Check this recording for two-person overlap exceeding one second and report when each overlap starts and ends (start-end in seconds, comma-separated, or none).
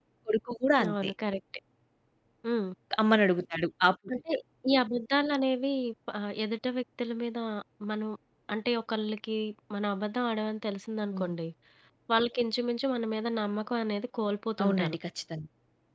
none